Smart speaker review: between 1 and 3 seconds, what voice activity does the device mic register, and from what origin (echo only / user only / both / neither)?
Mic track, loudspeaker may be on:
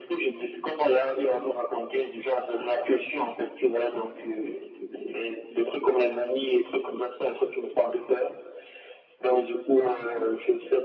echo only